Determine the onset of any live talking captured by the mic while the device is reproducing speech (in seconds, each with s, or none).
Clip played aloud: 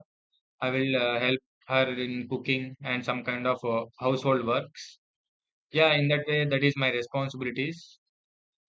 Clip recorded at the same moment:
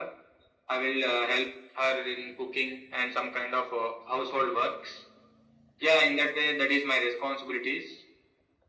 none